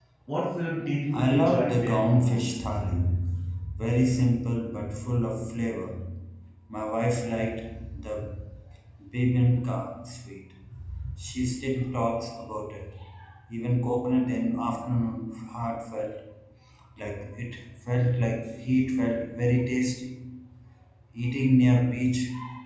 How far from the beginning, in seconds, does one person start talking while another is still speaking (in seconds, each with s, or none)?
1.1 s